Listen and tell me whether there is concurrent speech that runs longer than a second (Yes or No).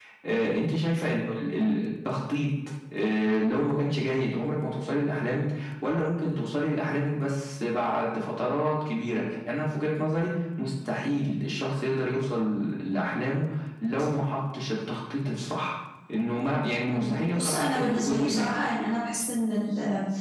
Yes